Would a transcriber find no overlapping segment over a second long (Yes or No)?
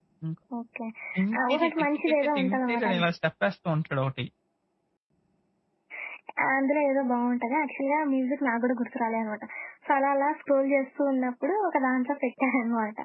No